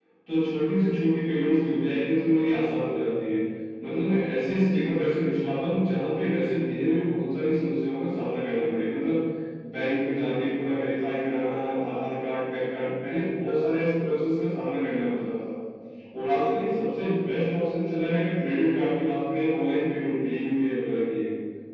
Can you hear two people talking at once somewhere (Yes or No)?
No